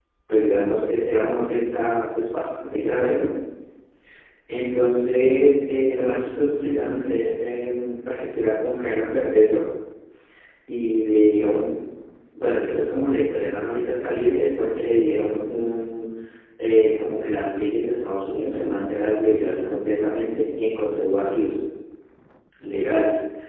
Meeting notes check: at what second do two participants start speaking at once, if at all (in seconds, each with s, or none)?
none